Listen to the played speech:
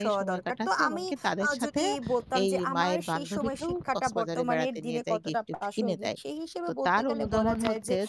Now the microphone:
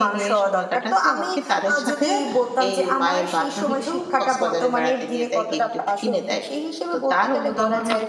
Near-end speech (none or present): none